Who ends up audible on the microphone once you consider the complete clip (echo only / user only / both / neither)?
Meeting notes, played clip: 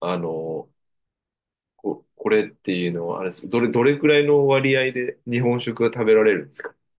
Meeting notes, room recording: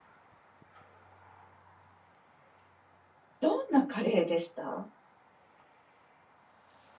user only